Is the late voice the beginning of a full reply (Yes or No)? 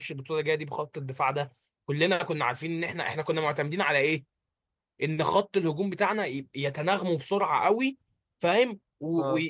No